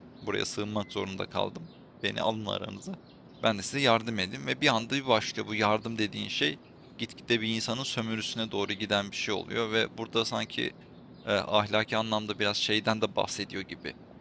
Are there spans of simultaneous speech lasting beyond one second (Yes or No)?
No